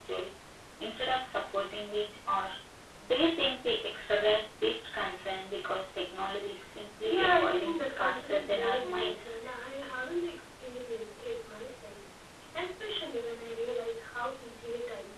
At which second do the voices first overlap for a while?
7.0 s

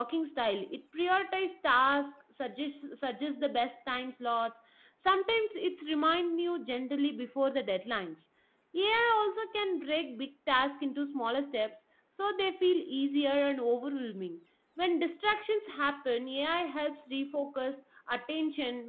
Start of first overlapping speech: none

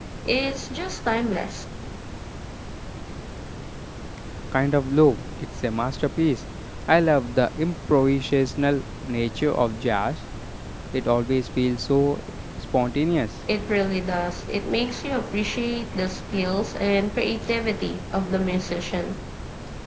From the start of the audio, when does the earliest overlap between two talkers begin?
none

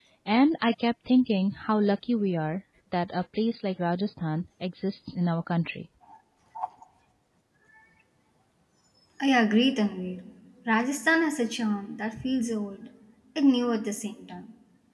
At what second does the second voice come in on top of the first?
none

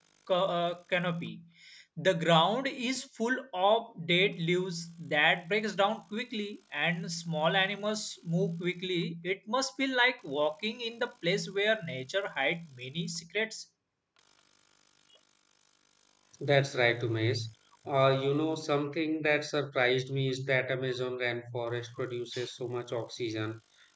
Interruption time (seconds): none

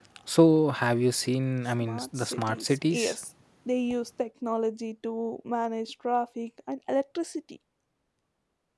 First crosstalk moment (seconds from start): 1.8 s

